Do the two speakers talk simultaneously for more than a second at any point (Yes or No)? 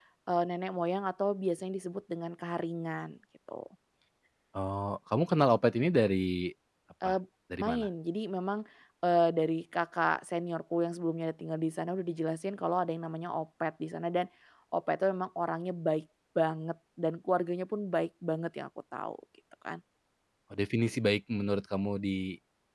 No